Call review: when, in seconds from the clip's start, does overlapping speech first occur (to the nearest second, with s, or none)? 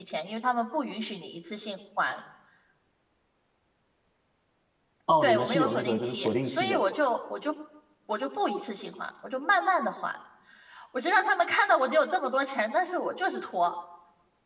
5 s